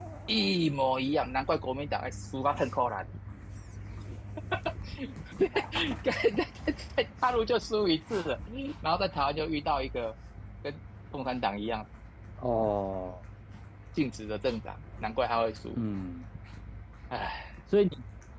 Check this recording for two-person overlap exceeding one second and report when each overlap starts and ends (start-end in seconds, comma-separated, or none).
none